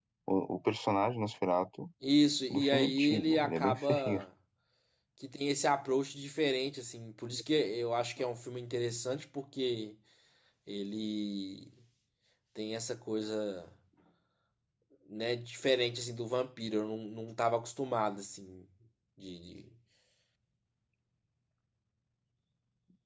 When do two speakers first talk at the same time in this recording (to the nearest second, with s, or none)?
3 s